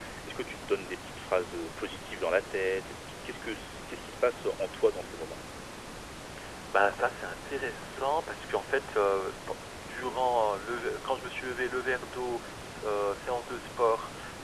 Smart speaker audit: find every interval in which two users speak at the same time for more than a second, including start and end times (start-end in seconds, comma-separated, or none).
none